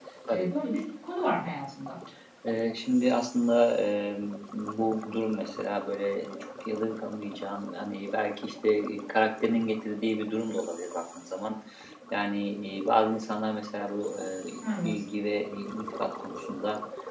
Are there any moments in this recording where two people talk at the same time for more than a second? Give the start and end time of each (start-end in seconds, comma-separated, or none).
none